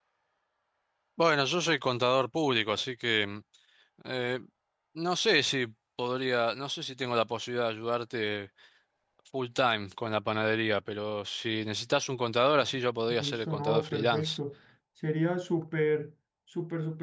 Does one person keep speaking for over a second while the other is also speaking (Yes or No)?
Yes